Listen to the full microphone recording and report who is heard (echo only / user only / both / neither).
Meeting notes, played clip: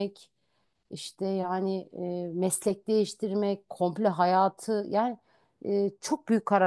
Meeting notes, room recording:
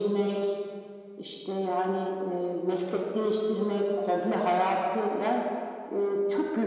echo only